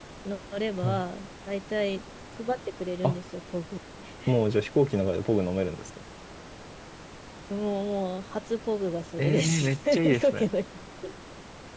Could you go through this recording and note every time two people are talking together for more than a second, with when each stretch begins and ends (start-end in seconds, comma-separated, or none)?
9.2-10.4